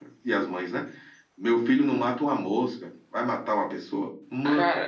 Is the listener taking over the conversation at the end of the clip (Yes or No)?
Yes